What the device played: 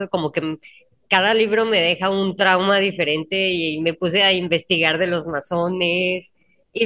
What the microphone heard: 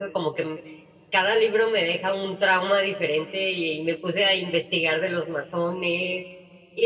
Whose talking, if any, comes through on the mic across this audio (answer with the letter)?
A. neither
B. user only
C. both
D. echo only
D